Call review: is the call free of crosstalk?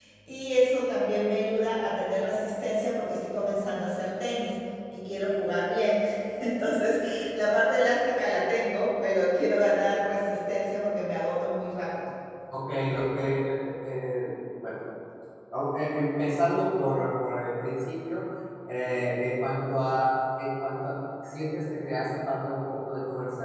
Yes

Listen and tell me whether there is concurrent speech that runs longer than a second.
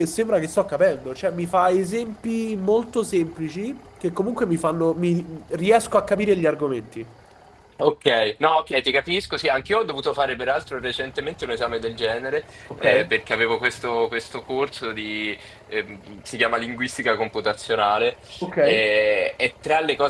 No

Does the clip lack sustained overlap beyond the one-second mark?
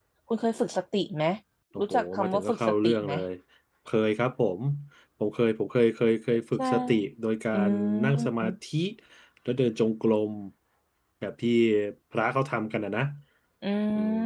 No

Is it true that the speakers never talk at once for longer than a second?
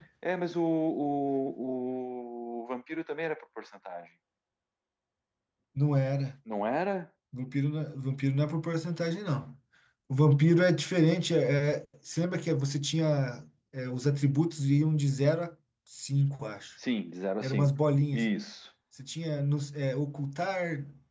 Yes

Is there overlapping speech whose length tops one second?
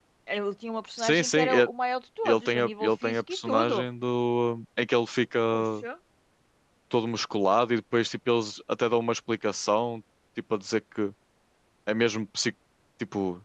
Yes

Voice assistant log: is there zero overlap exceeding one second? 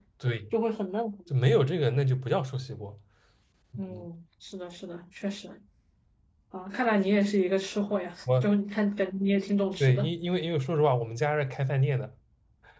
Yes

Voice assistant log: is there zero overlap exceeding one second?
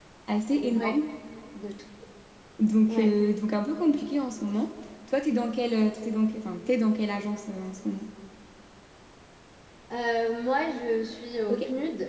Yes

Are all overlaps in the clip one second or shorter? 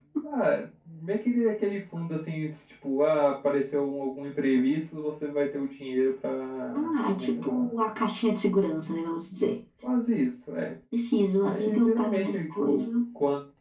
No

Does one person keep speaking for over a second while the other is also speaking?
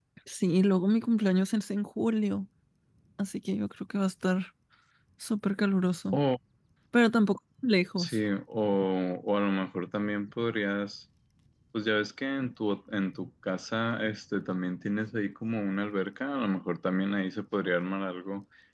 No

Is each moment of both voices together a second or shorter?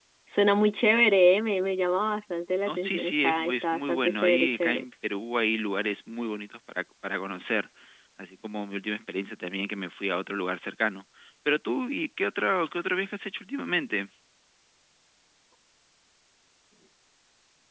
No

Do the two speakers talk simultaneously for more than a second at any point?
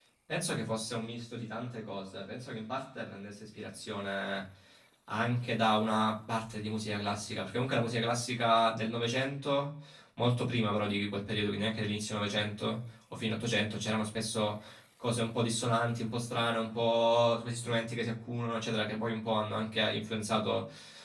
No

